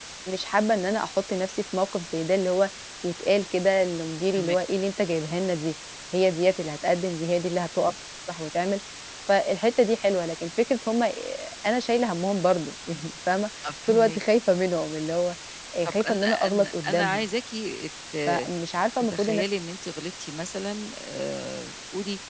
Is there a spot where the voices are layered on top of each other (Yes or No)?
Yes